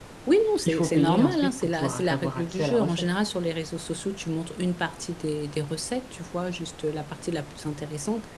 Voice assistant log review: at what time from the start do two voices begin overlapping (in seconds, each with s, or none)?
0.7 s